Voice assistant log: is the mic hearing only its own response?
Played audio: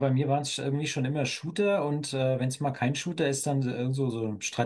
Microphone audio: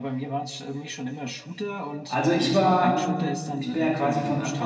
No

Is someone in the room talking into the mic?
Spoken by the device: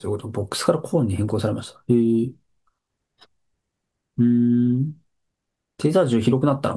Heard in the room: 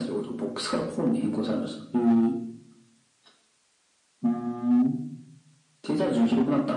No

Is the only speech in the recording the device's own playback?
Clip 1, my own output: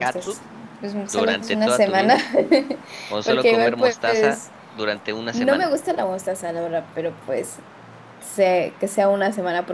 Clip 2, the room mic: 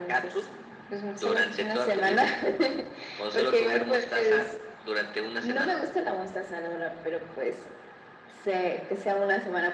Yes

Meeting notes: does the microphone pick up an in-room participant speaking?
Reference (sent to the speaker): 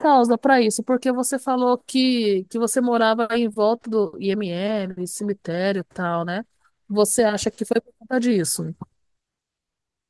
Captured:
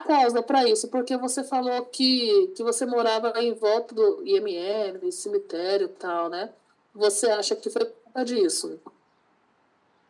No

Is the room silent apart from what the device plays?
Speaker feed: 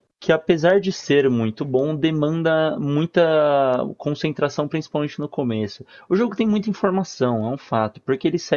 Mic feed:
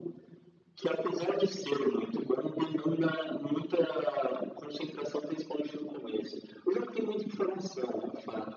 Yes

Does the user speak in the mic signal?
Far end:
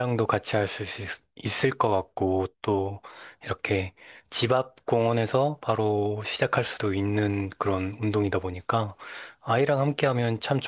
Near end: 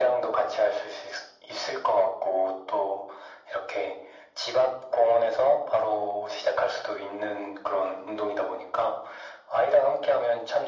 No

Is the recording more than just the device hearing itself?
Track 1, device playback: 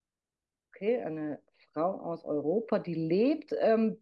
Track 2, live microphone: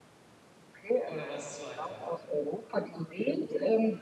Yes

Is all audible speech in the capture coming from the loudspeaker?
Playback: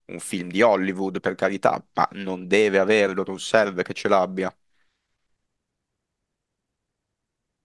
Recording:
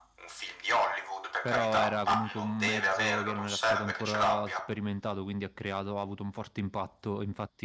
No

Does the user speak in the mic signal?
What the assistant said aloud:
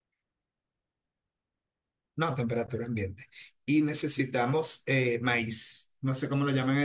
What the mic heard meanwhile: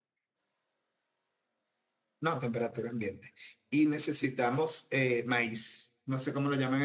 No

